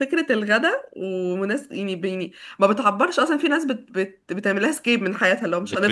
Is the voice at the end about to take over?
Yes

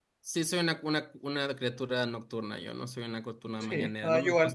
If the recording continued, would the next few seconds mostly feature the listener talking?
Yes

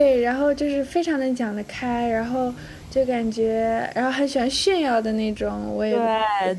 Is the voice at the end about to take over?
Yes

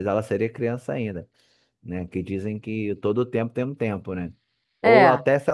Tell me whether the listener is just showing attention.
Yes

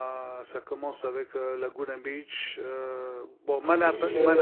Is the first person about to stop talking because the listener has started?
Yes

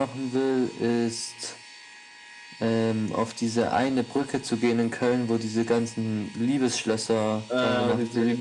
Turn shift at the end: Yes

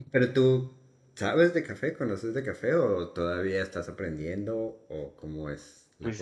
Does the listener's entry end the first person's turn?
Yes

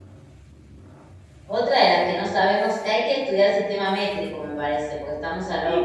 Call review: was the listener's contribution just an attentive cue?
No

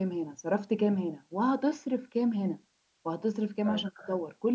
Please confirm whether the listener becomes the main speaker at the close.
No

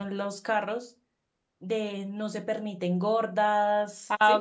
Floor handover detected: Yes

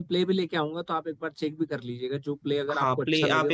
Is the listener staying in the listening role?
No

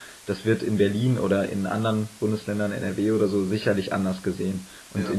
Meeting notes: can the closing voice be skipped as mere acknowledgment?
Yes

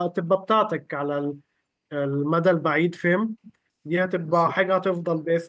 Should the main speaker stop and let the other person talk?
No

